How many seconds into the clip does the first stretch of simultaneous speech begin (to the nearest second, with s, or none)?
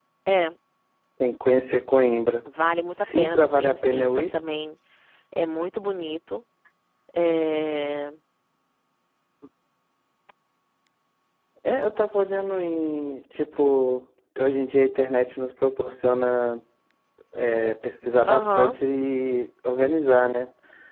3 s